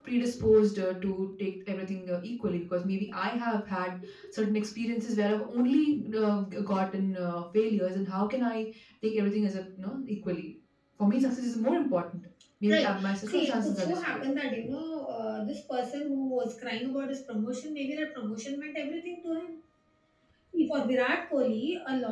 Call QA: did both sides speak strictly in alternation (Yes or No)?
No